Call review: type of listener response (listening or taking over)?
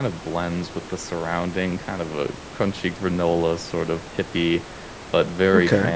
listening